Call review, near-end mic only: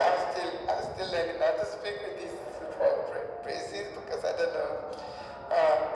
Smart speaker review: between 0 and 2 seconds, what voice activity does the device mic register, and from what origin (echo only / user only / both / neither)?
echo only